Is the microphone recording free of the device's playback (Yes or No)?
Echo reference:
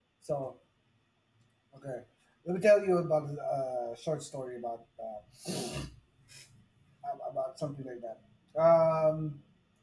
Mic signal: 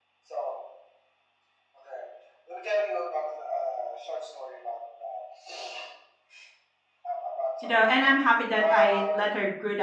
No